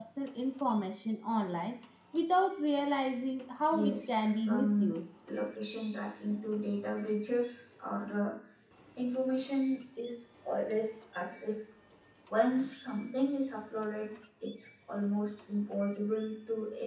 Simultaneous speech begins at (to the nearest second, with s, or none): 4 s